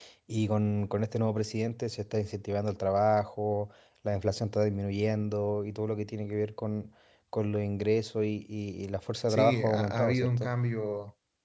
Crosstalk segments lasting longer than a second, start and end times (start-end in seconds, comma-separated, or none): 9.3-10.5